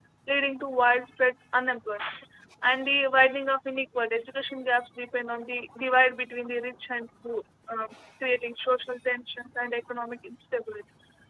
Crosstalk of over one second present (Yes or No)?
No